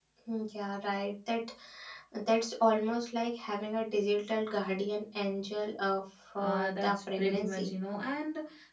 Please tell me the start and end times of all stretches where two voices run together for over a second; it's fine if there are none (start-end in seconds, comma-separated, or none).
6.4-7.7